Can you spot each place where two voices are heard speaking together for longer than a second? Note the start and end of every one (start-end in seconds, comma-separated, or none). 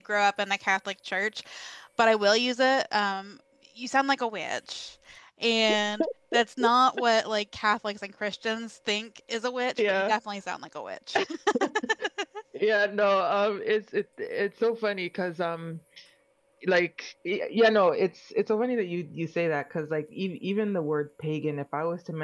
none